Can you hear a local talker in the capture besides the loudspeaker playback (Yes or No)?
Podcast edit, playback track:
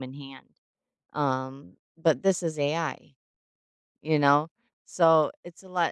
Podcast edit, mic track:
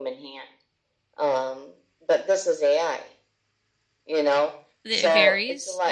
Yes